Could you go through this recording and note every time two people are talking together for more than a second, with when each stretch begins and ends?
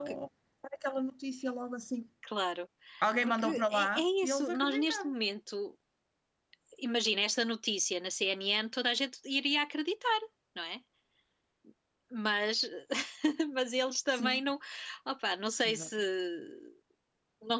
3.2-5.1

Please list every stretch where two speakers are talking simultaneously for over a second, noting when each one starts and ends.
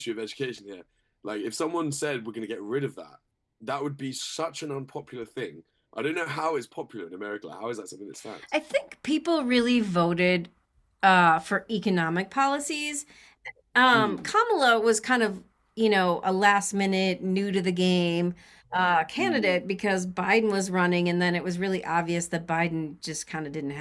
none

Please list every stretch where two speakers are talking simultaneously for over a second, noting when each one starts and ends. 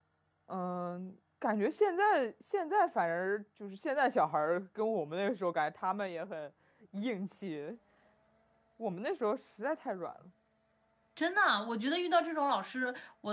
none

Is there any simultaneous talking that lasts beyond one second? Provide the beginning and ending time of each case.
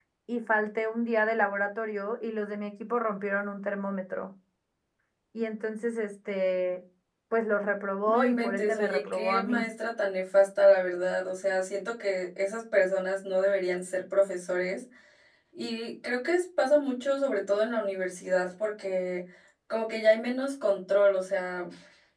8.1-9.6

